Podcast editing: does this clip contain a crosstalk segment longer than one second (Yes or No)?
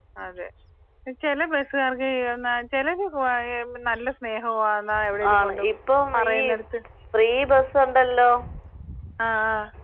No